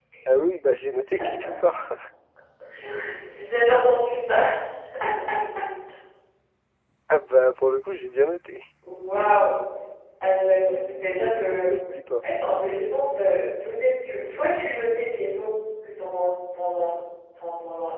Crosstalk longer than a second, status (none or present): none